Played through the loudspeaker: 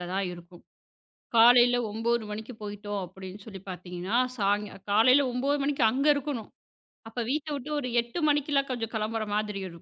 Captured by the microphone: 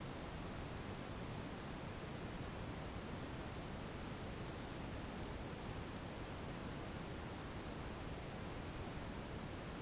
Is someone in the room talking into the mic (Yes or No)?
No